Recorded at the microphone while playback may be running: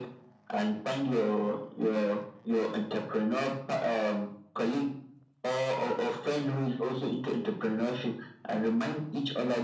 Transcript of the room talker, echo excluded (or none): none